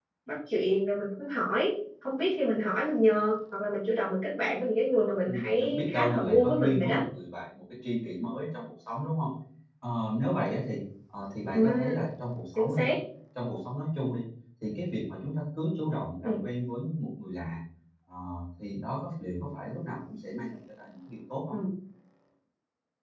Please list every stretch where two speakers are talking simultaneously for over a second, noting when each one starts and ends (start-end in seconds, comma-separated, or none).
5.3-7.0